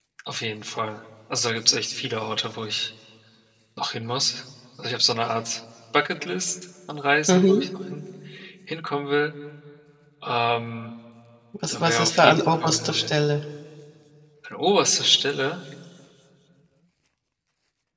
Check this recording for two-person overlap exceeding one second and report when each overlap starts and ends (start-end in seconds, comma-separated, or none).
11.7-13.1